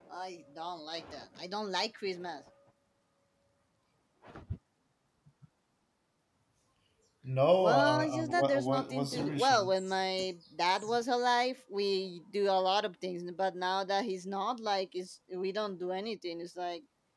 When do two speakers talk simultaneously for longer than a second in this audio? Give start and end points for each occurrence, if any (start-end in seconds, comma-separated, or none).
7.6-9.7